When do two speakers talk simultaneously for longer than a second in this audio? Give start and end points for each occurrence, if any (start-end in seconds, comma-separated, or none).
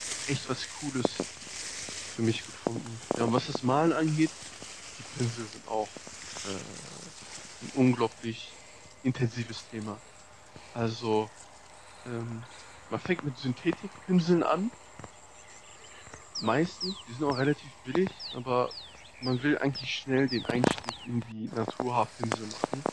none